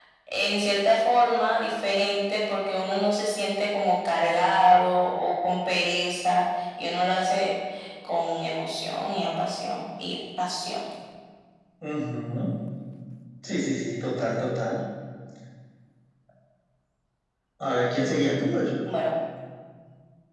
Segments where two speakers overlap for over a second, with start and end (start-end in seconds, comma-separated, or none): none